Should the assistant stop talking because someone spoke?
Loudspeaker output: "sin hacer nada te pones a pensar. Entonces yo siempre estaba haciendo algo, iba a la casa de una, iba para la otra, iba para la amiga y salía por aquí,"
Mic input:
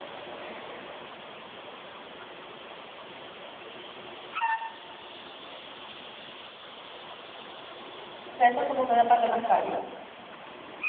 Yes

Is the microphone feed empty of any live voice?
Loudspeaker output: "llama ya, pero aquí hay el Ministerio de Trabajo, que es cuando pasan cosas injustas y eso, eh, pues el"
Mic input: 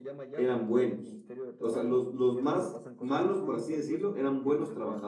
No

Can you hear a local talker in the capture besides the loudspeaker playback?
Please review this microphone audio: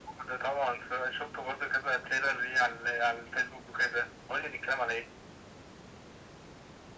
No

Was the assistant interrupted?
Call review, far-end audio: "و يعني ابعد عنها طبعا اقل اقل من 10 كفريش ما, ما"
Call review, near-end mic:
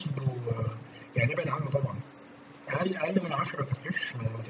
No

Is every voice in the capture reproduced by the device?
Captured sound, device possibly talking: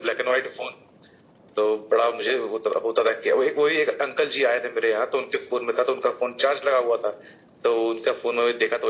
Yes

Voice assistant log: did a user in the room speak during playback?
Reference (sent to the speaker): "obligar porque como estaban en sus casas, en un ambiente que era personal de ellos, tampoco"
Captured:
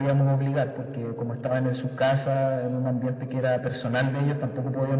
No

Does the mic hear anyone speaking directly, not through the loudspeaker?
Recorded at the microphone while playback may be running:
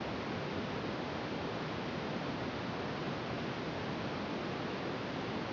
No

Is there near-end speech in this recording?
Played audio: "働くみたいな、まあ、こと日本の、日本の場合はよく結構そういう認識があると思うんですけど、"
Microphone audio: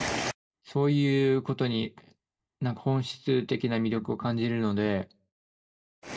Yes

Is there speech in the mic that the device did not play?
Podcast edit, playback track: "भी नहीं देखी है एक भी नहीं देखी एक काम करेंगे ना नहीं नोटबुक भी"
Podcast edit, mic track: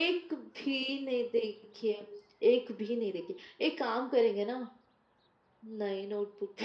No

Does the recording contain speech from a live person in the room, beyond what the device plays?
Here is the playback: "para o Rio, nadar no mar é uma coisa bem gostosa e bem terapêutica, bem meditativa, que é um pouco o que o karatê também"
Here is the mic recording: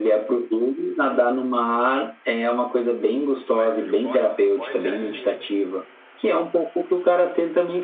Yes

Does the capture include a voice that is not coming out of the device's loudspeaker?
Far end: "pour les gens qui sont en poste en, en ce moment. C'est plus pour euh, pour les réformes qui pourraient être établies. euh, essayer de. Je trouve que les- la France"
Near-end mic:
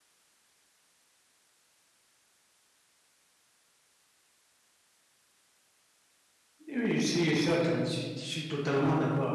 Yes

